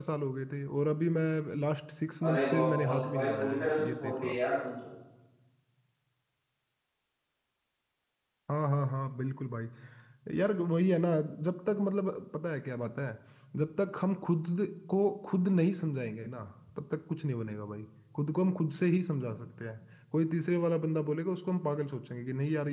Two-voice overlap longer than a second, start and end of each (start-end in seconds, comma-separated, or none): 2.3-4.4